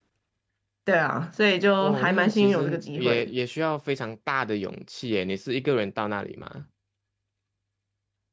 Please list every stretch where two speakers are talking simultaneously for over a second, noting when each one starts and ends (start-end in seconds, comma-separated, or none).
1.8-3.3